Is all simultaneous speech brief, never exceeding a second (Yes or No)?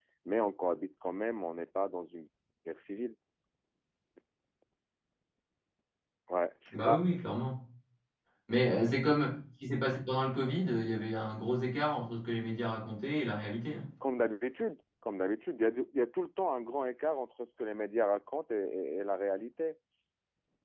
Yes